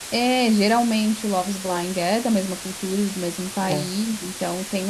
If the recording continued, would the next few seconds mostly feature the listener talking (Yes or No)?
No